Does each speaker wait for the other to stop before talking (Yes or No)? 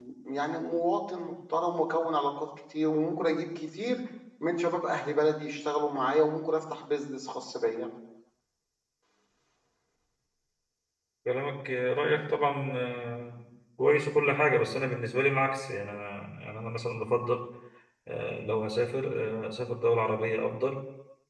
Yes